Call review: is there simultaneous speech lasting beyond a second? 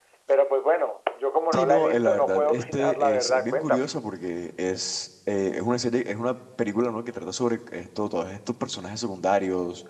Yes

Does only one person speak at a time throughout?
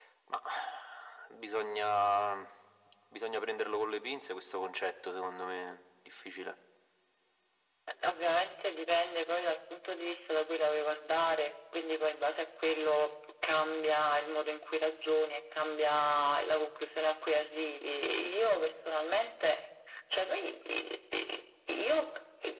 Yes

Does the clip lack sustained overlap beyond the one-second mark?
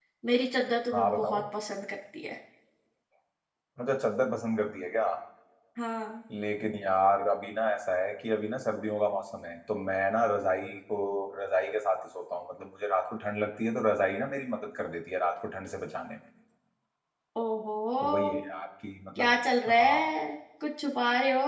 Yes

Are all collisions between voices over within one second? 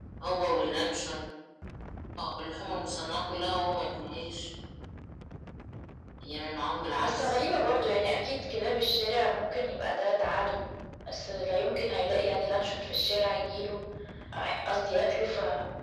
Yes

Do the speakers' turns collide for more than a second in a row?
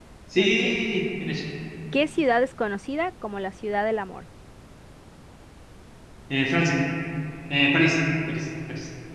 No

